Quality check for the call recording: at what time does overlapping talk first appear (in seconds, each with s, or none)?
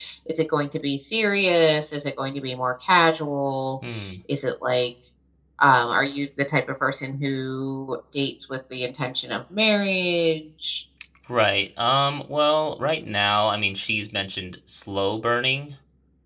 none